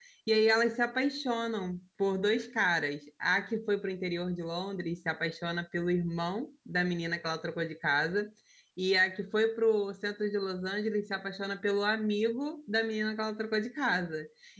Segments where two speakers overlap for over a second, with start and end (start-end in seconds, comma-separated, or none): none